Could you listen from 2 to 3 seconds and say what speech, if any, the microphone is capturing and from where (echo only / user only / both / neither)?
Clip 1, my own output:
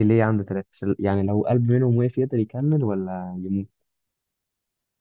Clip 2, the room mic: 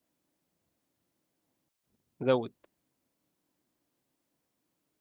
user only